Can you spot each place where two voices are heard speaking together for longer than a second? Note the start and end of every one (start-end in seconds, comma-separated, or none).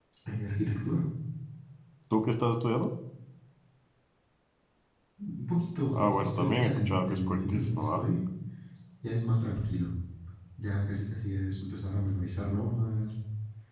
5.9-8.0